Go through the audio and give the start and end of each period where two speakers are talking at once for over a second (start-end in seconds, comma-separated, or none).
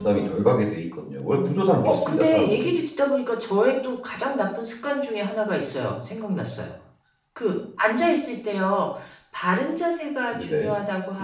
1.3-2.7